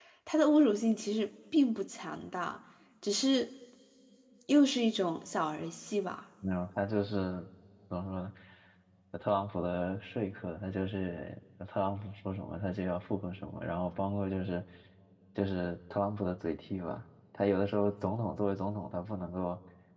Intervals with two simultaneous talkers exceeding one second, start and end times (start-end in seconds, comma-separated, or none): none